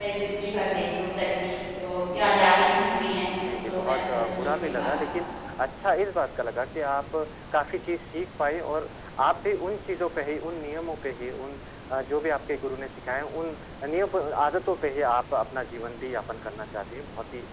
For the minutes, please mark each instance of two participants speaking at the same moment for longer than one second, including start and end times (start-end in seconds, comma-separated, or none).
3.6-5.1